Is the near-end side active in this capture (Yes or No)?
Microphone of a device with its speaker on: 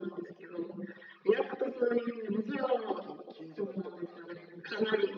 Yes